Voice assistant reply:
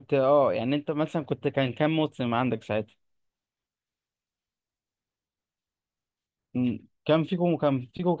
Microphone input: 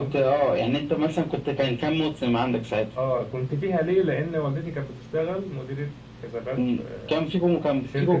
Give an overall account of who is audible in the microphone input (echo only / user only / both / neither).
both